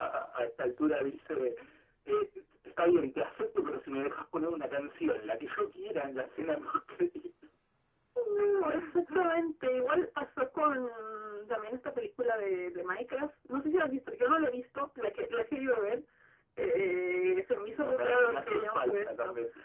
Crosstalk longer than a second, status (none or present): present